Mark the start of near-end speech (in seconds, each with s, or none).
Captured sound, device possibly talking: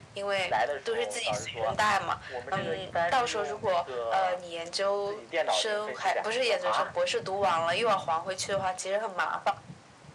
none